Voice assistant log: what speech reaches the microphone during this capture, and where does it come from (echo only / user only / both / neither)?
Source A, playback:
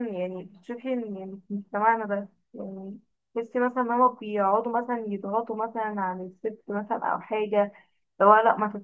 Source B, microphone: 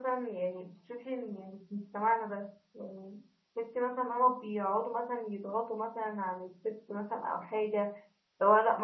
echo only